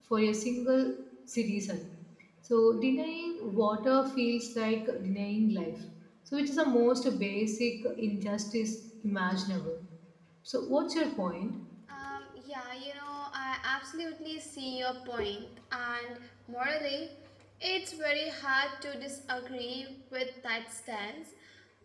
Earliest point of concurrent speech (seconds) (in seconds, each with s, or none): none